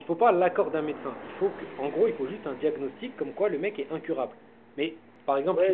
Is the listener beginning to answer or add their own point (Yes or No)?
Yes